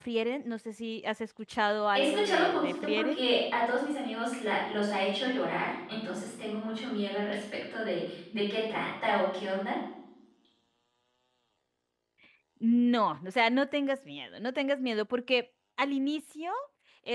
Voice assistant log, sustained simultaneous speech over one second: present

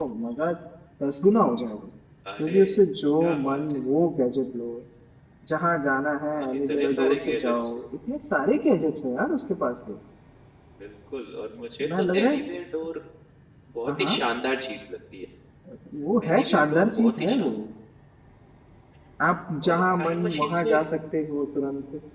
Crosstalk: present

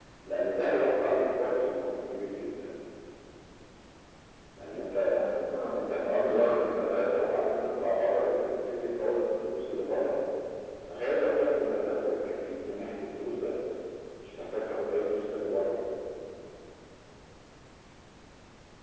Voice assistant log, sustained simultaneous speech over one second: present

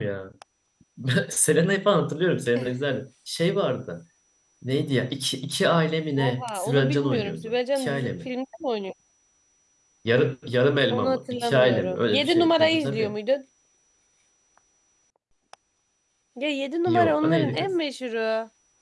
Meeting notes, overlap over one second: present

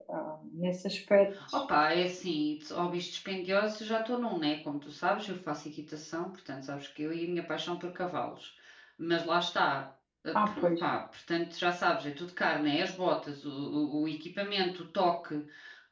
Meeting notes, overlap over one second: none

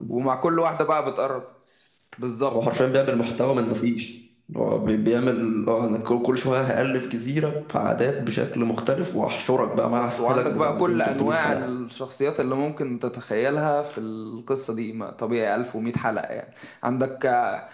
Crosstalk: present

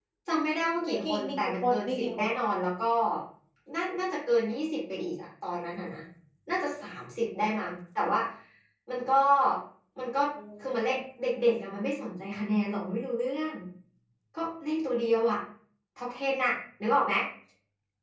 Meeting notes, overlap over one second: present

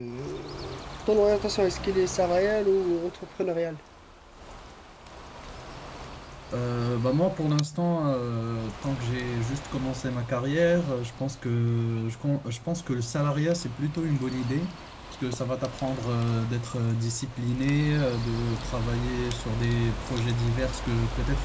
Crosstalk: none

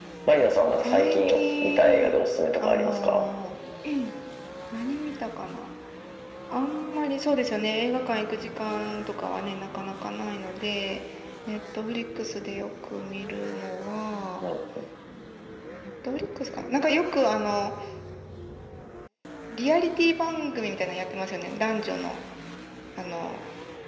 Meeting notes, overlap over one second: present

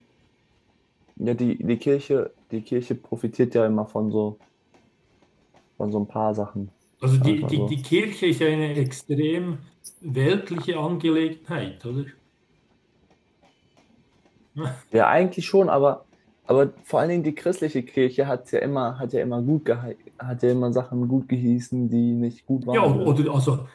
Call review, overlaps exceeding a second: none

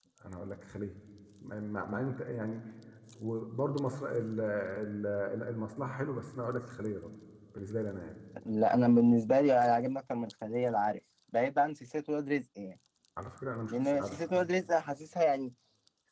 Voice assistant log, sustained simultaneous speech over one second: none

